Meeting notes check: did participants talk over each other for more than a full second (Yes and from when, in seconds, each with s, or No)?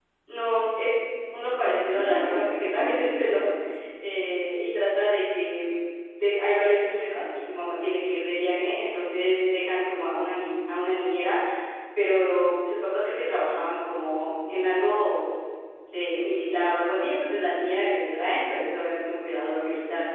Yes, from 1.2 s